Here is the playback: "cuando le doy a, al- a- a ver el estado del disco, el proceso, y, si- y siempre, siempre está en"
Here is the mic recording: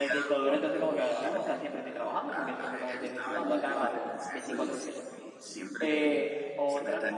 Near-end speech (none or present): present